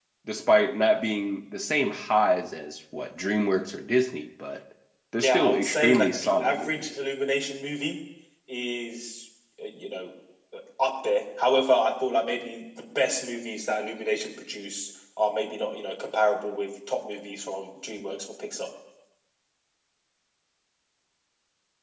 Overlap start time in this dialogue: 5 s

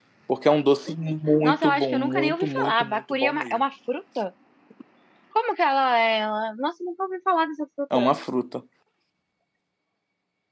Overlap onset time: 1 s

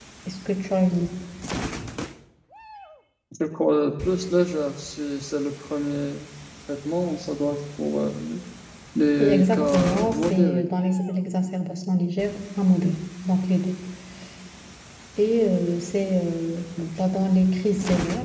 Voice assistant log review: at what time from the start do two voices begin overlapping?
9 s

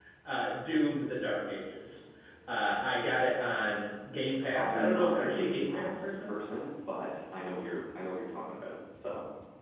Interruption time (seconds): 5 s

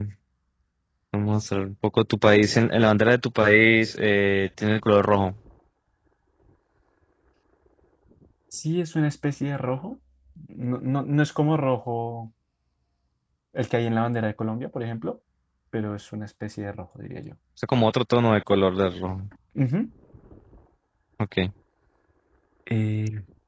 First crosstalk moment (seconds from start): none

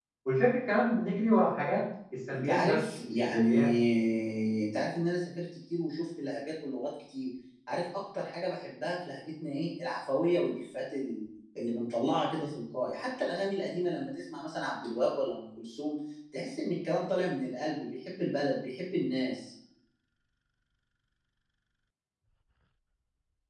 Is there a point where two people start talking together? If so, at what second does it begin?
2 s

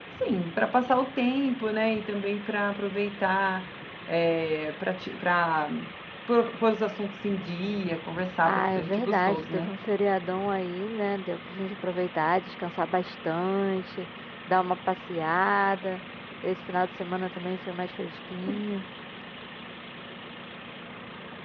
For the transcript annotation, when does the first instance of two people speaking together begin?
8 s

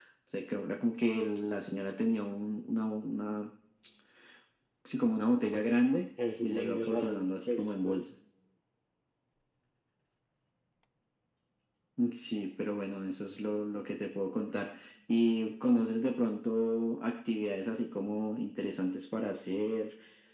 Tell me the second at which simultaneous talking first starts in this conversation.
6 s

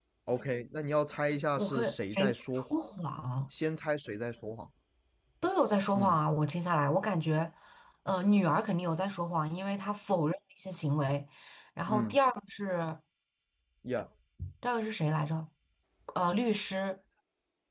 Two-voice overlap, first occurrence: 2 s

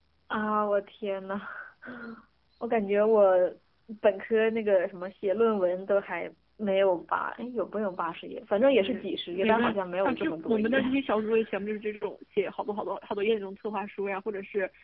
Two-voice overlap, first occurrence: 9 s

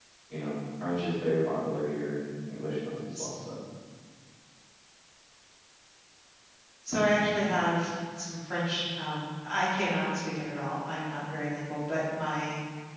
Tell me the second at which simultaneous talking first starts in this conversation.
none

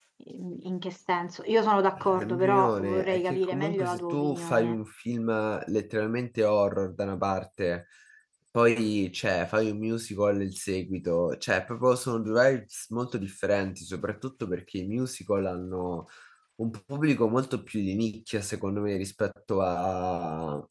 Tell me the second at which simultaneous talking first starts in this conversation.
2 s

